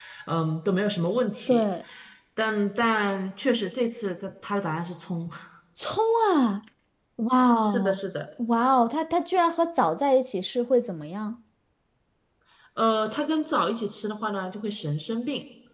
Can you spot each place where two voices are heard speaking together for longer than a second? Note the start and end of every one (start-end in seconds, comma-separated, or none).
none